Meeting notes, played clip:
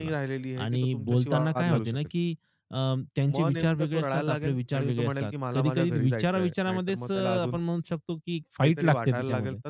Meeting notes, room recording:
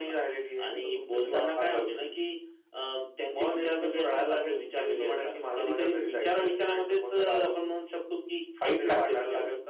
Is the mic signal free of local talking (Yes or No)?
No